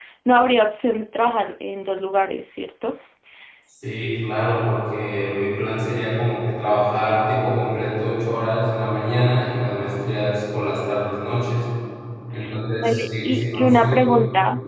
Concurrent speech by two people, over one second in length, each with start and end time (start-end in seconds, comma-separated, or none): 12.8-14.2